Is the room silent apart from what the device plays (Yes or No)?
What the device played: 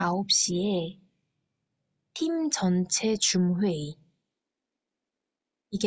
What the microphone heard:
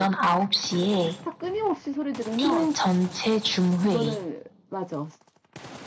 No